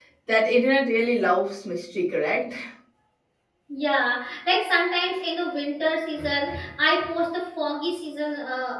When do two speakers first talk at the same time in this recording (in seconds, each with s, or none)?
none